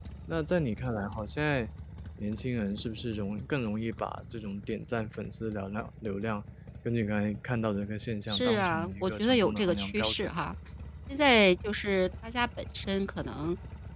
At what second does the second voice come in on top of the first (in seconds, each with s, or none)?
8.3 s